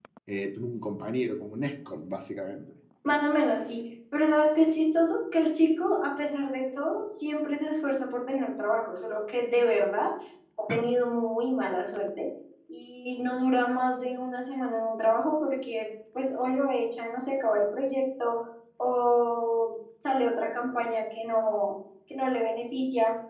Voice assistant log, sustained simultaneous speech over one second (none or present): none